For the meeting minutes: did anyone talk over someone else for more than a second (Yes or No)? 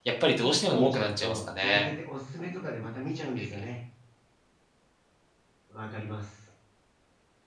Yes